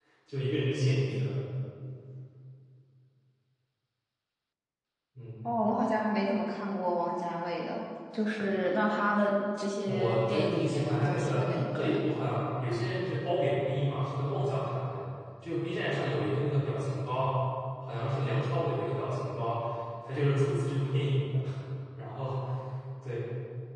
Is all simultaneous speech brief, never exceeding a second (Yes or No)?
No